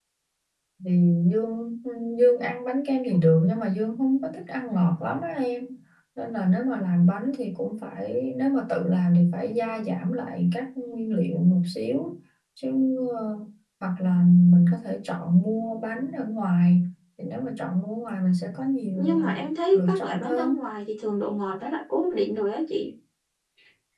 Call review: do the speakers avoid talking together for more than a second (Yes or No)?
No